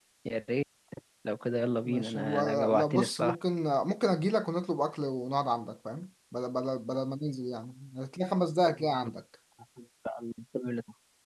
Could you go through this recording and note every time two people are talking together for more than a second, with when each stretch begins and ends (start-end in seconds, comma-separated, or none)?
1.9-3.4